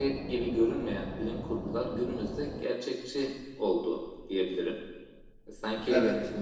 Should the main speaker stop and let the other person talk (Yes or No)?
No